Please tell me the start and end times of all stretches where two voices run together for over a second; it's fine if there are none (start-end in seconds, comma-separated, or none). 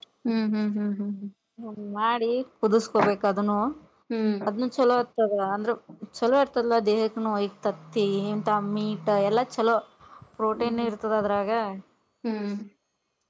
none